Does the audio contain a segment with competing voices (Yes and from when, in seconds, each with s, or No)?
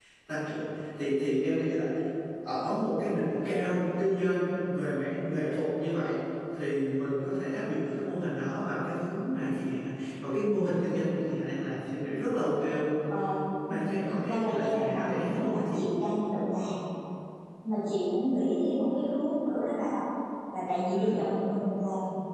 Yes, from 13.7 s